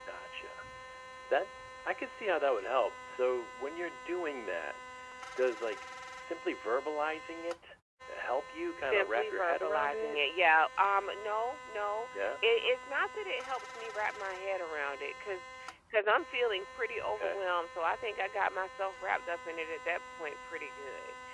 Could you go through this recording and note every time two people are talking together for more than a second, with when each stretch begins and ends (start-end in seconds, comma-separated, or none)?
8.8-10.2